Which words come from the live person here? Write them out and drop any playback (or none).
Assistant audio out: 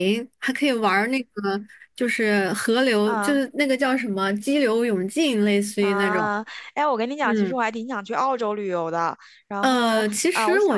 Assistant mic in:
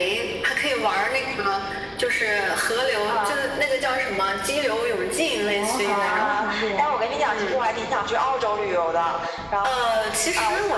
哦，好玩吗？韩国？